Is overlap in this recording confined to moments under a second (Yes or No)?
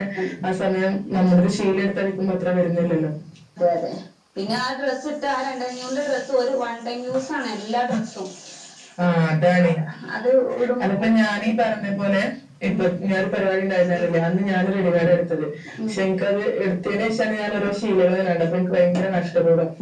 Yes